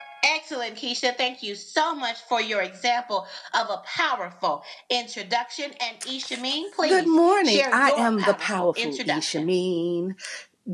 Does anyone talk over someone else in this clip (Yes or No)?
Yes